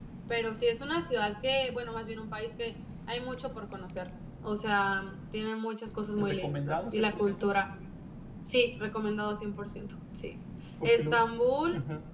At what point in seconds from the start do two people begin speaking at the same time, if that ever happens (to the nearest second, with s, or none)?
6 s